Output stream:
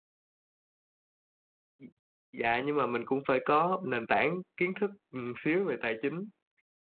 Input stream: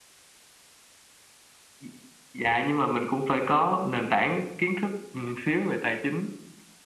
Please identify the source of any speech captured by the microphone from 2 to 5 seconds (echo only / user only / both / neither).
echo only